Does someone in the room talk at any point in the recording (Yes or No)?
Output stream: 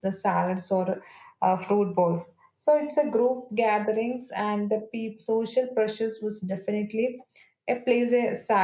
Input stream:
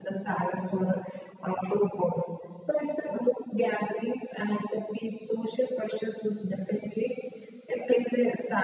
No